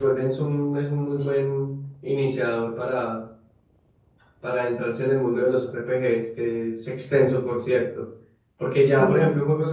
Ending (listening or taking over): listening